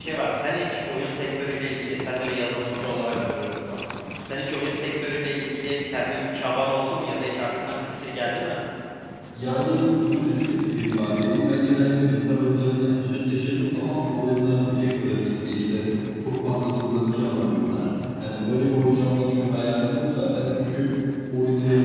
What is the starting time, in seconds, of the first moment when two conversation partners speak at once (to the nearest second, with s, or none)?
none